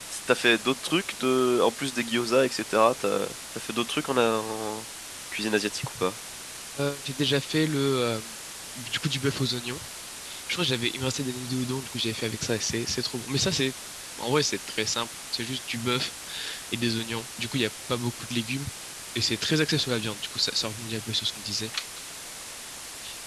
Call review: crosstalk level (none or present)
none